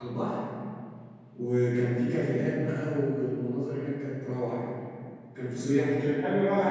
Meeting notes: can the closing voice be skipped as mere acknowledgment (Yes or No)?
No